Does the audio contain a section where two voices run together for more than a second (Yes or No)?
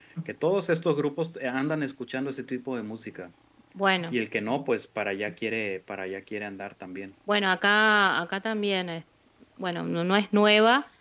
No